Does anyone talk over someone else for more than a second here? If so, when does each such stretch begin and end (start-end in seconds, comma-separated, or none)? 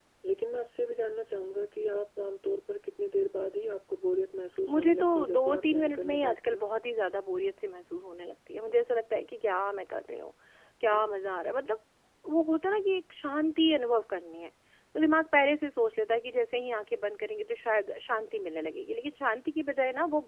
4.7-6.7